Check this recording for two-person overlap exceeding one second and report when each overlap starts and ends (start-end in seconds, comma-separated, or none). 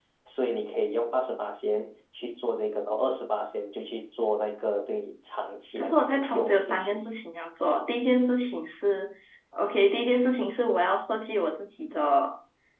5.8-7.0